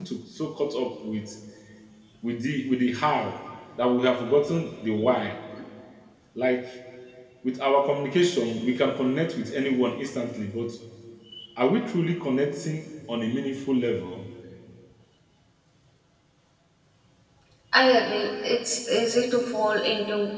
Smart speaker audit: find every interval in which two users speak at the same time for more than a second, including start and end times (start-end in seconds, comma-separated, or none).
none